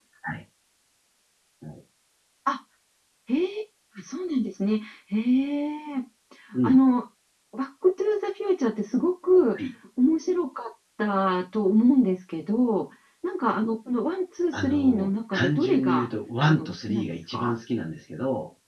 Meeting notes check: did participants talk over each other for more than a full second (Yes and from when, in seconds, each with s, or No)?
Yes, from 14.5 s